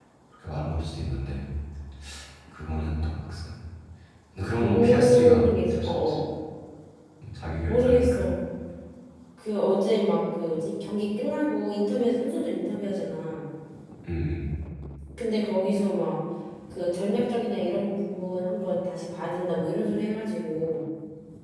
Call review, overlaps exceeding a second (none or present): present